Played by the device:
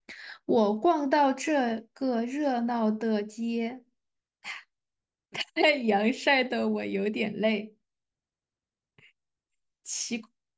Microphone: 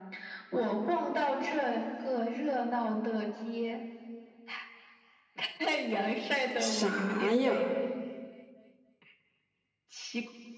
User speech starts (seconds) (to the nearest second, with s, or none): 7 s